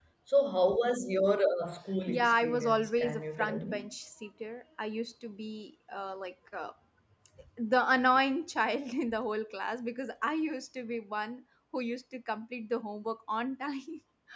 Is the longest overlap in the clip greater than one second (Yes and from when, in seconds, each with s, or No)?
Yes, from 2.1 s